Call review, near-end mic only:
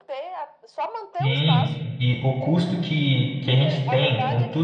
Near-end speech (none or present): present